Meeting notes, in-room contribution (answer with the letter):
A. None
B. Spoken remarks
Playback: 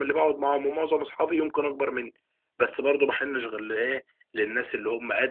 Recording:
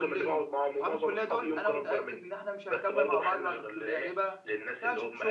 B